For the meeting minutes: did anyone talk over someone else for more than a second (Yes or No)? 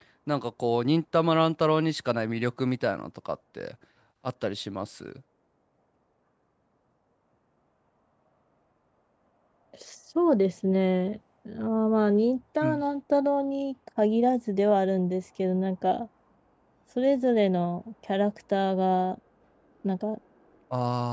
No